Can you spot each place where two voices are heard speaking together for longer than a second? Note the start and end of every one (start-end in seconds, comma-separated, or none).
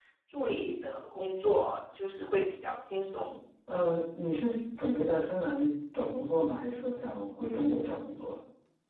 none